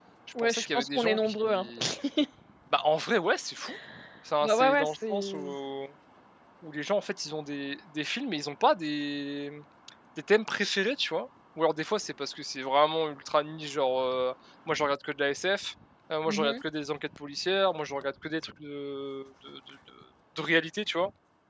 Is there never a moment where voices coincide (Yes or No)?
No